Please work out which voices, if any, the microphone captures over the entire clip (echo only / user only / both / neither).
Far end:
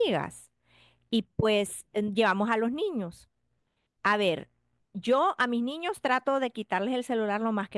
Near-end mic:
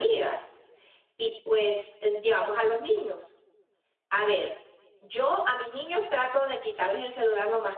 echo only